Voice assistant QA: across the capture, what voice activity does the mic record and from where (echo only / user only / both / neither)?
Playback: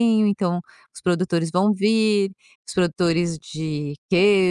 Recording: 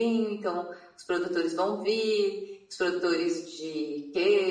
echo only